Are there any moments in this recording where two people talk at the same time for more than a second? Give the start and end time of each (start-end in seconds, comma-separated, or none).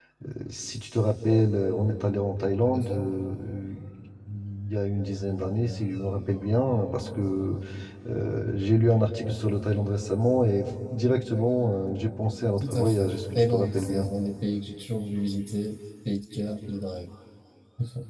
12.6-14.1